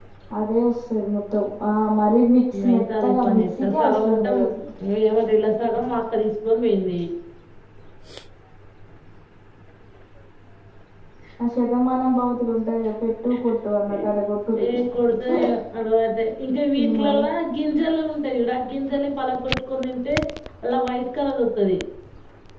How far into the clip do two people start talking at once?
3 s

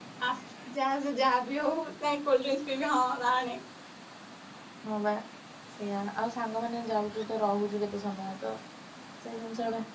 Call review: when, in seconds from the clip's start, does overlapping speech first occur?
none

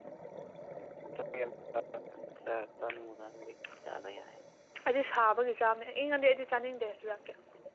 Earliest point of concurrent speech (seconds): none

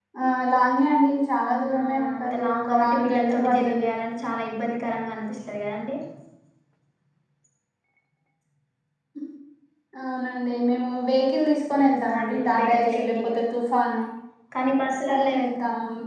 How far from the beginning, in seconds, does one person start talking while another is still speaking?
2 s

